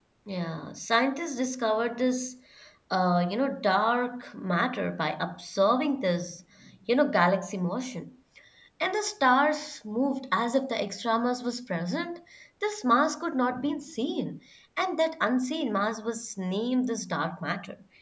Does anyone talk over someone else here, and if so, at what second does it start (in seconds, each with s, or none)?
none